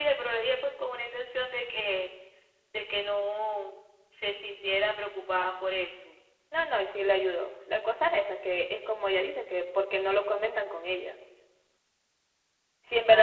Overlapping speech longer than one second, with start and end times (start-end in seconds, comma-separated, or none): none